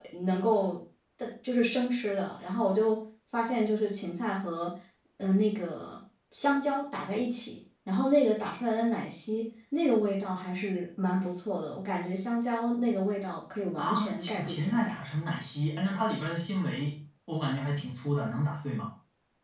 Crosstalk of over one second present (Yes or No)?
Yes